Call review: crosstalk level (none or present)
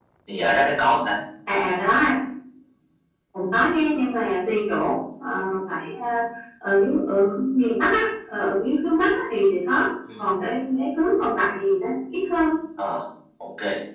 none